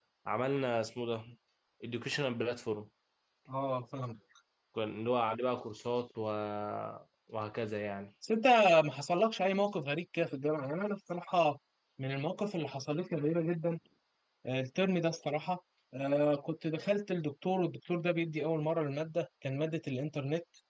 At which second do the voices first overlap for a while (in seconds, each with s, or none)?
none